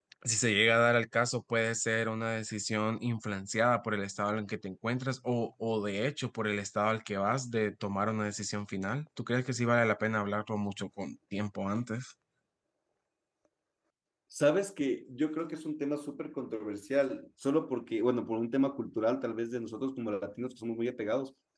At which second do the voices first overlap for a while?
none

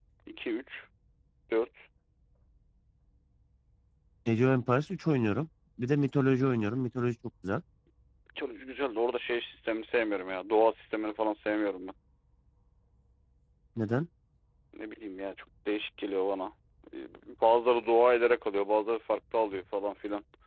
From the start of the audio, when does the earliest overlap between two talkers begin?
none

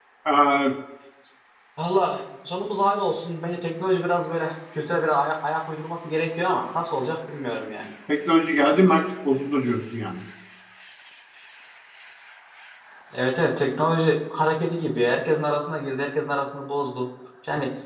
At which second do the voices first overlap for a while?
none

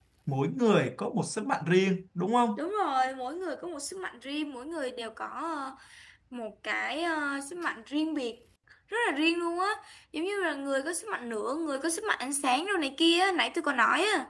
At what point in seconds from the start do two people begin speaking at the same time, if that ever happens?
none

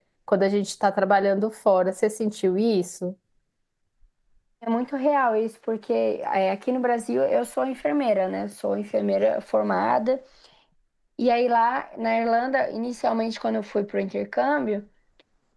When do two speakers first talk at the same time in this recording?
none

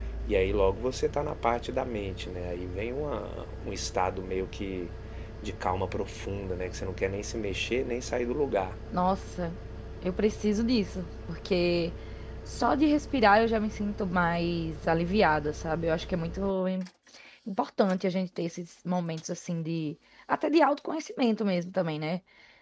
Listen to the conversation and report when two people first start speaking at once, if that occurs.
none

